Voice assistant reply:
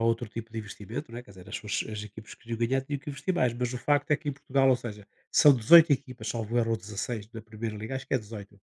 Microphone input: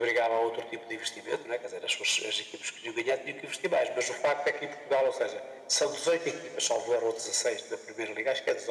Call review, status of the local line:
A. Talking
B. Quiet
B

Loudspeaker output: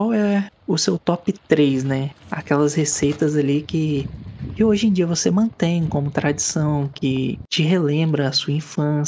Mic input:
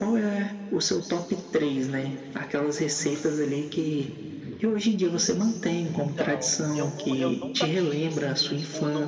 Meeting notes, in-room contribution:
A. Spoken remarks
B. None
A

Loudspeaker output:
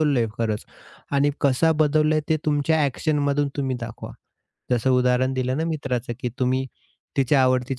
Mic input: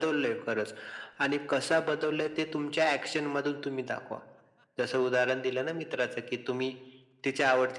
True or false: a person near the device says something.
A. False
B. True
A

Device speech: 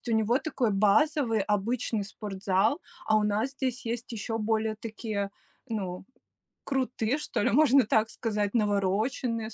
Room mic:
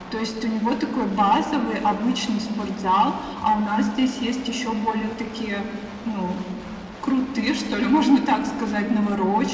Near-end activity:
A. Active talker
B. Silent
B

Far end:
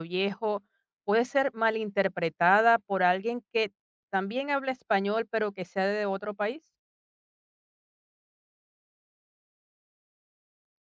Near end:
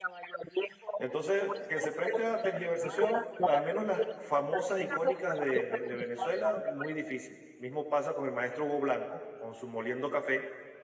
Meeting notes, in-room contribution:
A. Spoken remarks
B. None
A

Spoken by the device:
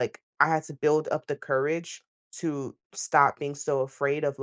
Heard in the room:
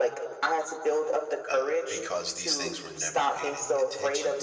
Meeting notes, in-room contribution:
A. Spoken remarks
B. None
A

